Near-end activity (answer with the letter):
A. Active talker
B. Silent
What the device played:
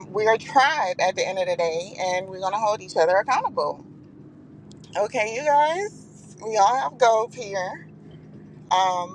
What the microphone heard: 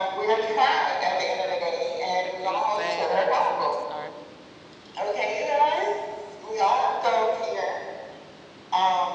A